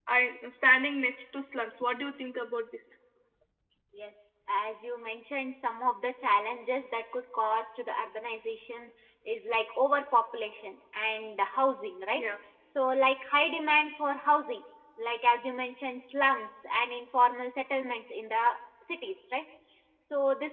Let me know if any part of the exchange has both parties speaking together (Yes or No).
No